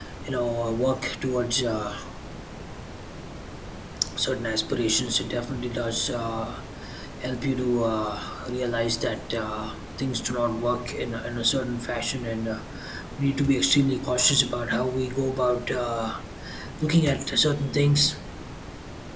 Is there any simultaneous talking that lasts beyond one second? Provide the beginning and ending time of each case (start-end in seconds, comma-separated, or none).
none